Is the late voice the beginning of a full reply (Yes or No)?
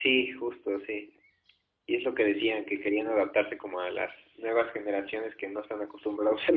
Yes